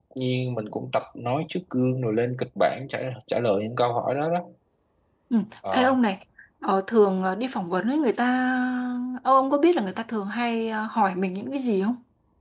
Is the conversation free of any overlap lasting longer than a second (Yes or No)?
Yes